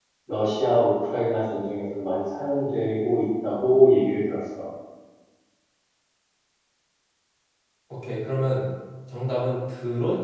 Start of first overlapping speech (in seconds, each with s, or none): none